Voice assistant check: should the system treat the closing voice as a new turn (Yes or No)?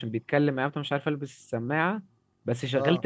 No